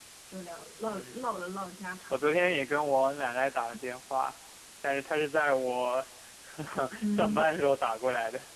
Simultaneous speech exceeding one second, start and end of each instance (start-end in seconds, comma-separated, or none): none